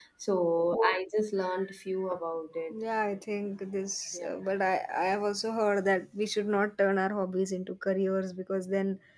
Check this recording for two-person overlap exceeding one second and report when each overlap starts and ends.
none

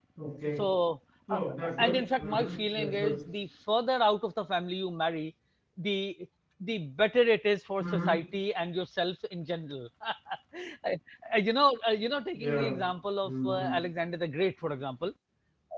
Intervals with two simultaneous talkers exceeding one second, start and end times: 1.8-3.2

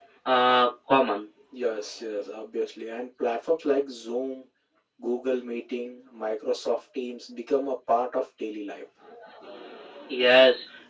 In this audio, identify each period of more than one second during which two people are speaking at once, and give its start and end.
none

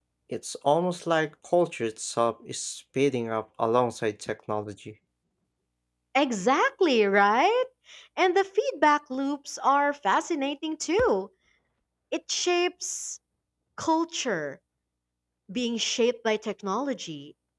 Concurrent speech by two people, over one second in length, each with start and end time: none

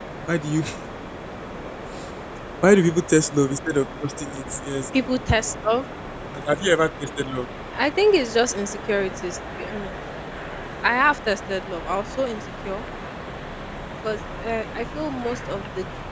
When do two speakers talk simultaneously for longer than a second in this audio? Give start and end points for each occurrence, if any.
none

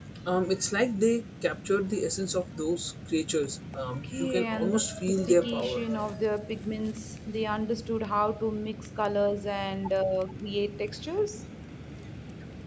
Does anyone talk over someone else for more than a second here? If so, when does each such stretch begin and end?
4.2-5.8

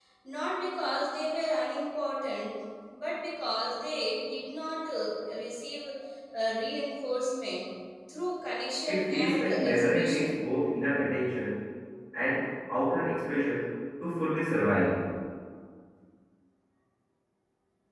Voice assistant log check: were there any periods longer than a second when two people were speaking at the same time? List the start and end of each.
8.9-10.4

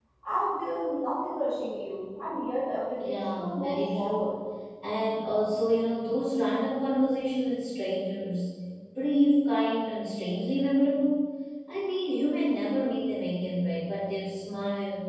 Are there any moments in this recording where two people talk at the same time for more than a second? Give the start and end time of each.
3.0-4.3

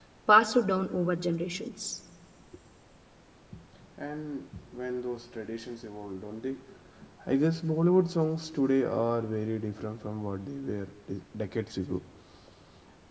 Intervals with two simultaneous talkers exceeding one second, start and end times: none

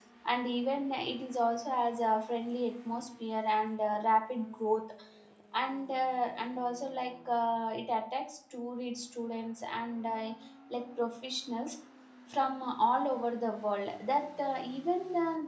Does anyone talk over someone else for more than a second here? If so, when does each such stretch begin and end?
none

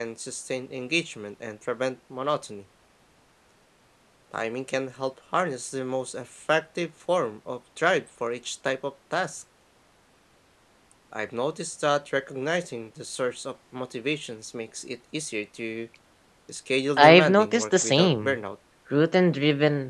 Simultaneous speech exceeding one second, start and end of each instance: 17.0-18.4

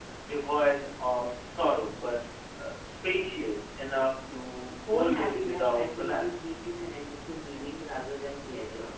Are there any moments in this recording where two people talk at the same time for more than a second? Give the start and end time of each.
4.9-6.5

